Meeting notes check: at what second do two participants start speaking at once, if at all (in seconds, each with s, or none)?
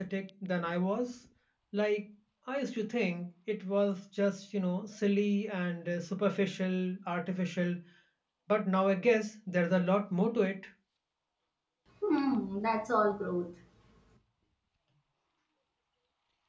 none